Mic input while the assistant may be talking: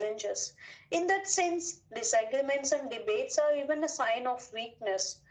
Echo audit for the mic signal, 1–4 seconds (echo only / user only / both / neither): echo only